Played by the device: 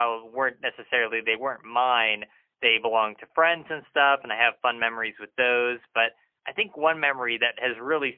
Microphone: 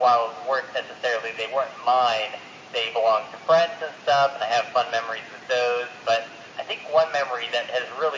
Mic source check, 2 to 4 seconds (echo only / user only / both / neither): echo only